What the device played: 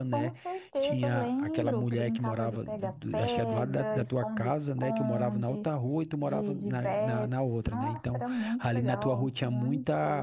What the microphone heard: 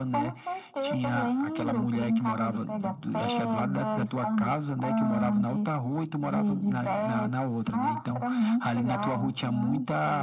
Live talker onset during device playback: none

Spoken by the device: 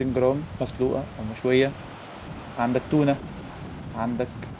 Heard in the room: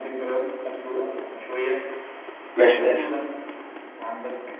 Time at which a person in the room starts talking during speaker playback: 2.5 s

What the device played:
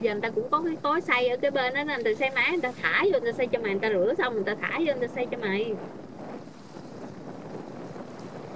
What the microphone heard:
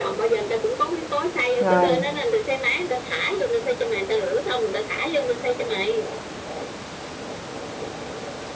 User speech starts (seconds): 1.6 s

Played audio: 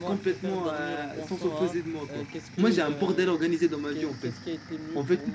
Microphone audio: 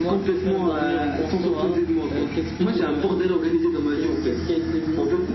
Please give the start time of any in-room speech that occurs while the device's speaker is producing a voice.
none

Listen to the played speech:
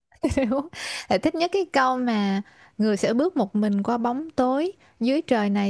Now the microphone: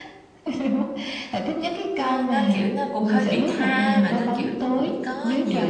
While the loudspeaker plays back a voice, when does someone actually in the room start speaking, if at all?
2.0 s

